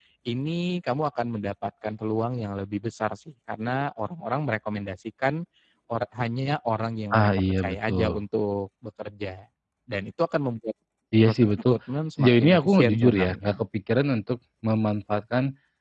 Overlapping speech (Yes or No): Yes